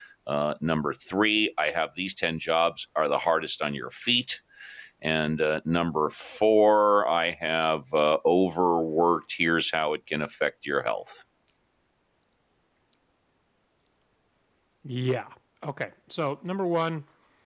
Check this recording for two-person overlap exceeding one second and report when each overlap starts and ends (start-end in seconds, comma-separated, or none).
none